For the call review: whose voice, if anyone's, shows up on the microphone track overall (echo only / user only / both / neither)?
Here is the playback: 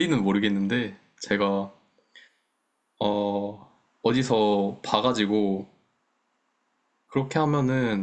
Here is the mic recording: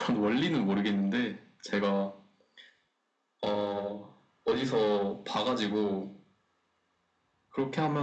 echo only